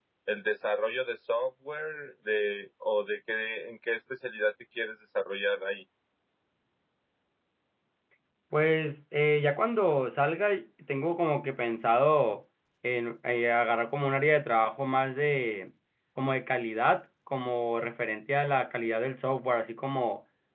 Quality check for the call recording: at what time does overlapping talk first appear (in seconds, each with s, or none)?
none